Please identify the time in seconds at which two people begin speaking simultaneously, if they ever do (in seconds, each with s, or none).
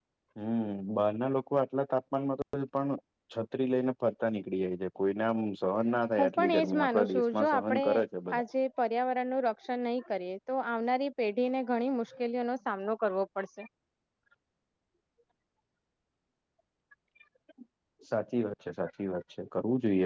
6.2 s